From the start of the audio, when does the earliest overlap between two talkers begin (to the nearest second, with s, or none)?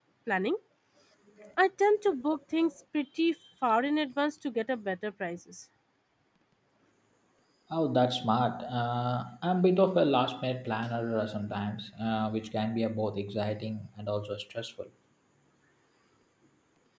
none